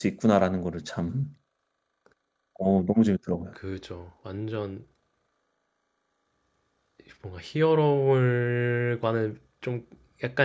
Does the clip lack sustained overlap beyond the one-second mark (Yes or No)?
Yes